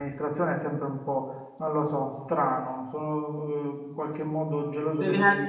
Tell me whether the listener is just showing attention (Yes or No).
No